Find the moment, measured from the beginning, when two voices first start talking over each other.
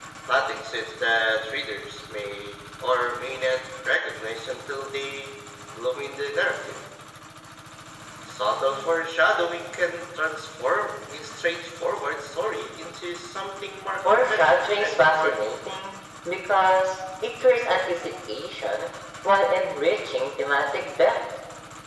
14.0 s

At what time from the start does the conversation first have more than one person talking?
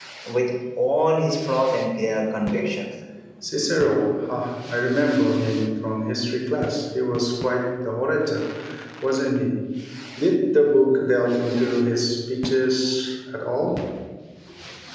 none

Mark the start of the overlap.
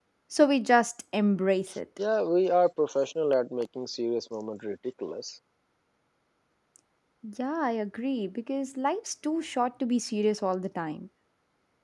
none

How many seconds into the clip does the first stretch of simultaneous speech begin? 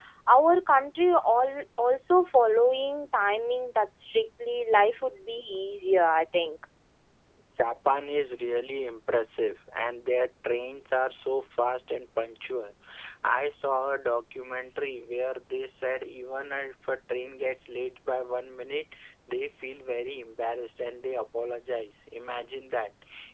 none

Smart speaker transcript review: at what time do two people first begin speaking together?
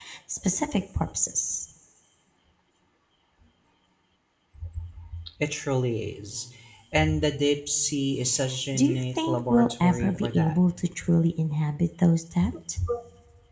8.7 s

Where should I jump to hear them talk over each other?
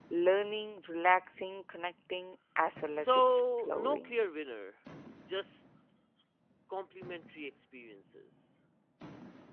2.9 s

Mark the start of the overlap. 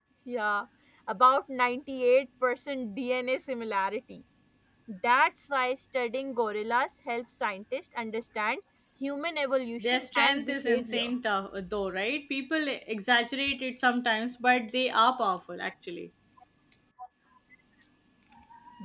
9.8 s

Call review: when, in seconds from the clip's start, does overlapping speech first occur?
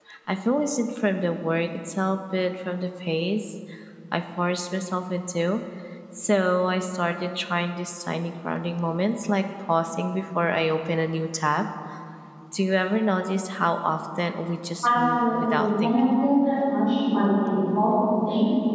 14.8 s

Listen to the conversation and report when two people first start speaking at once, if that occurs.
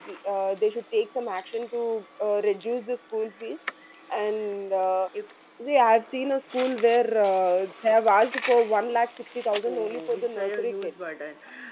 9.6 s

